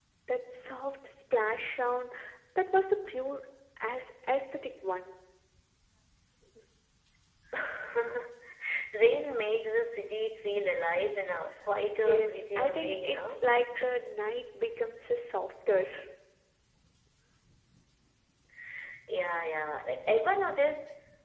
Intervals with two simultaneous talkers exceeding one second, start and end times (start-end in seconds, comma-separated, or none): 12.0-13.5